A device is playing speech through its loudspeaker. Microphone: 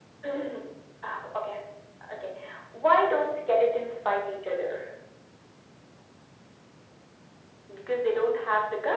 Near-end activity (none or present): none